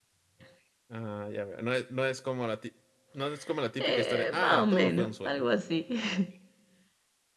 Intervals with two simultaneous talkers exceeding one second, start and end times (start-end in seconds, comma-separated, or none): 3.8-5.4